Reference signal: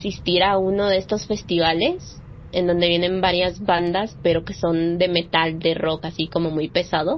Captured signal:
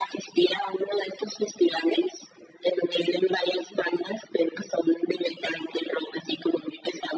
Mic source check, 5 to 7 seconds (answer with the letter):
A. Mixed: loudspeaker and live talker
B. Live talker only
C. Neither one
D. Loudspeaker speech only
D